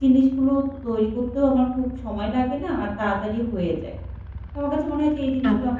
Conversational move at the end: listening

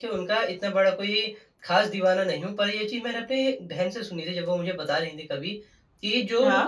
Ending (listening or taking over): listening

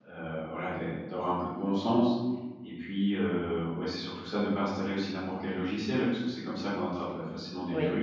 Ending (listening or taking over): taking over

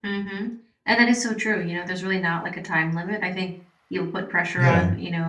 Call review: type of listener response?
listening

